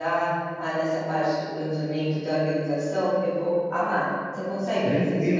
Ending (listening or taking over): taking over